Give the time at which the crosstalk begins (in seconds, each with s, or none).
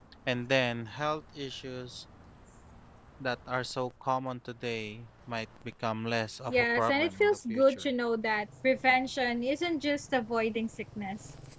6.5 s